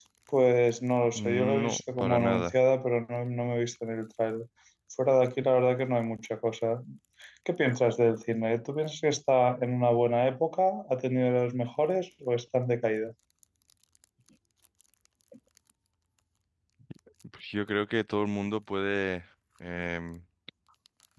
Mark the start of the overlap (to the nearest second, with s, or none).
1 s